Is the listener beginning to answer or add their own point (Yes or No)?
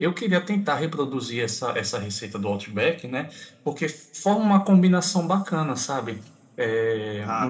No